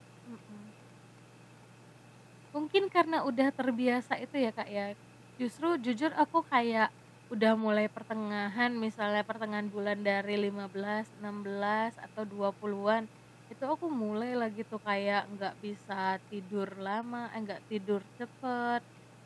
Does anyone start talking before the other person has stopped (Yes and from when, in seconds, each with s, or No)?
No